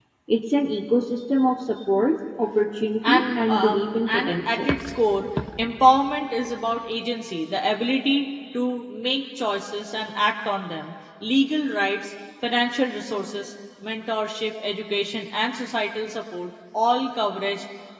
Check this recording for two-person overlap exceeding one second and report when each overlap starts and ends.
3.0-4.7

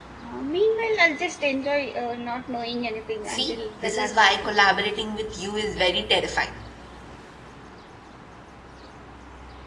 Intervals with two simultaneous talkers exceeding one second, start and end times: 3.2-4.5

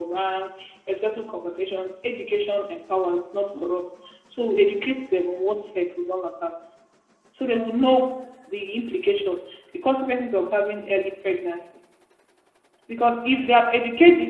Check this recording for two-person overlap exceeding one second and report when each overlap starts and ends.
none

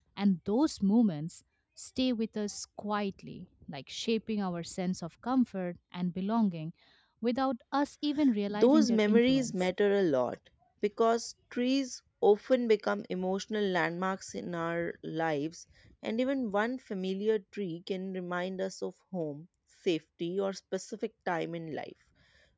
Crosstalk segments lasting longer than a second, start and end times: 8.5-9.7

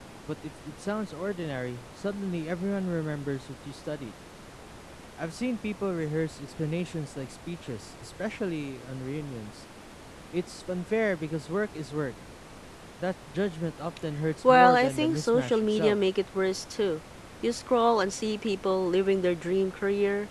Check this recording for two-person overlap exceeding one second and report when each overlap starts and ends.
14.4-16.0

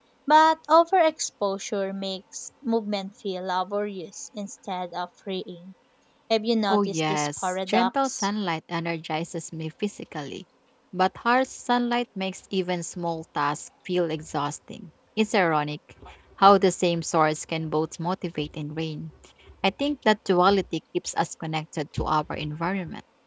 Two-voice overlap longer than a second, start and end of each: 6.7-8.3

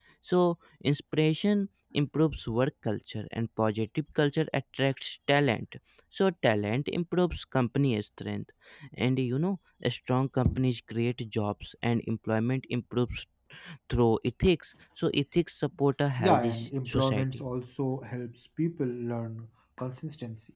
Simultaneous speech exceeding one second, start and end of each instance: 16.2-17.4

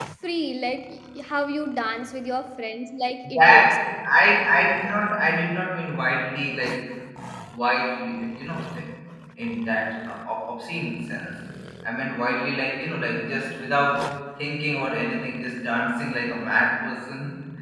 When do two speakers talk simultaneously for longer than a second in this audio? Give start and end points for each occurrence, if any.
none

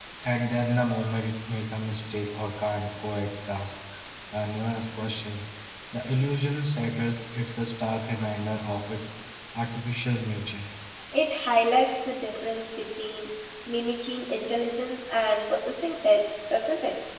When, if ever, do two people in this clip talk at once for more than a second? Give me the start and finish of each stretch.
none

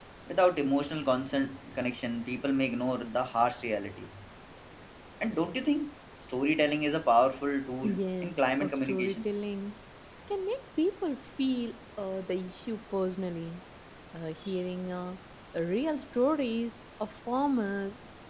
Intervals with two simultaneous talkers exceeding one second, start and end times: 7.8-9.2

